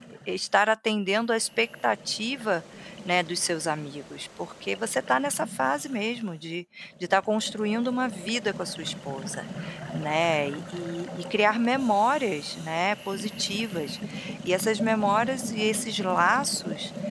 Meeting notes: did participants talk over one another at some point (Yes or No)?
No